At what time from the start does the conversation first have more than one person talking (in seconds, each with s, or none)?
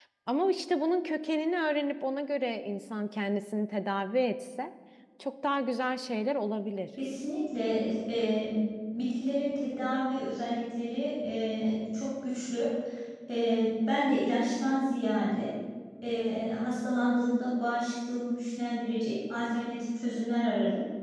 none